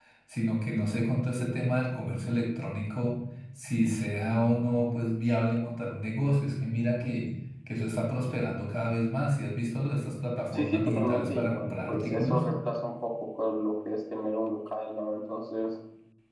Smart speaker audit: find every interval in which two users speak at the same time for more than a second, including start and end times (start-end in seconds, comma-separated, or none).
10.5-12.4